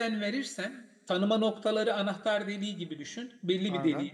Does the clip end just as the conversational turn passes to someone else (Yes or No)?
No